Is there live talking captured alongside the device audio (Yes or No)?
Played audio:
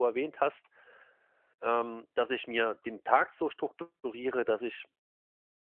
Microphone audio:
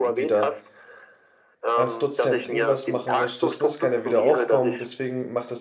Yes